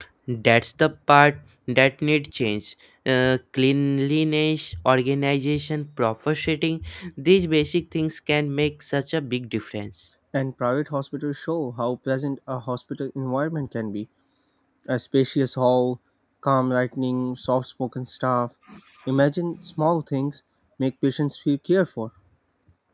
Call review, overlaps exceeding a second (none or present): none